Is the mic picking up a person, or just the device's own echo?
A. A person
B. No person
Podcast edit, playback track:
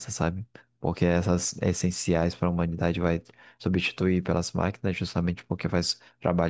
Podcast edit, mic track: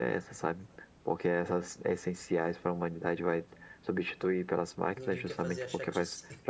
A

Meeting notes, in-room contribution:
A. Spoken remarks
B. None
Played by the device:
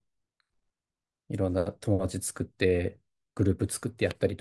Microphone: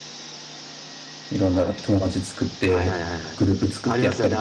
A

